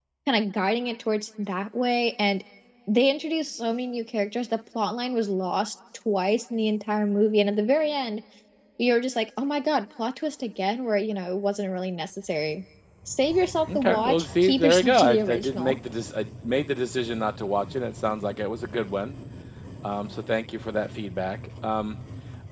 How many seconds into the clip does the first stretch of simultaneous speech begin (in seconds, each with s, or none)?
13.8 s